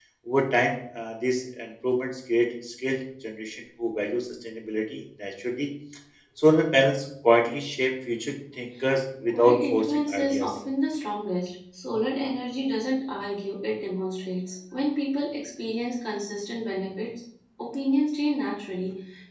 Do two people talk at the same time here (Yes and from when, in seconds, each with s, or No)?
Yes, from 9.3 s